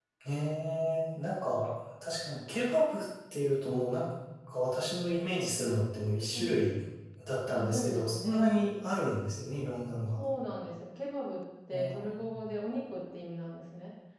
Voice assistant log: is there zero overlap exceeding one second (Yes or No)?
No